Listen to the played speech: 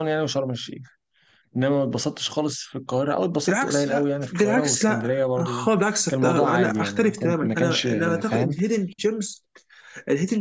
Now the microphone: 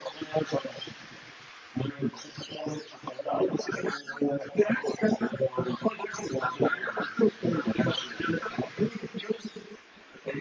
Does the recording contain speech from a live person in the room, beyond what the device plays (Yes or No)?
No